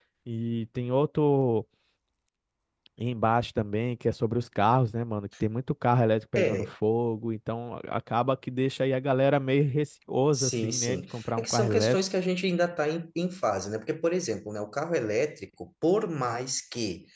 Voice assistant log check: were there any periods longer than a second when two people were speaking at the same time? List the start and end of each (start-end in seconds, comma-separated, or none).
10.3-12.0